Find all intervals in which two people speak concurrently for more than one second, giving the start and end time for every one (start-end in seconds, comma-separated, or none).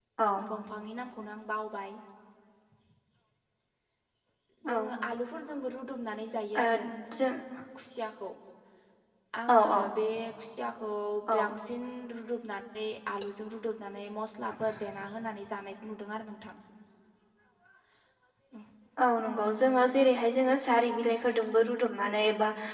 none